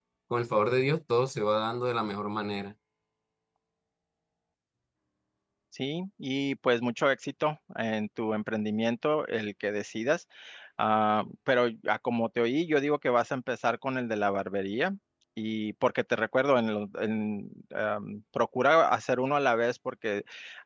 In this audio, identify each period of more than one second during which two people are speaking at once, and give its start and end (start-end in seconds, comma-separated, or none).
none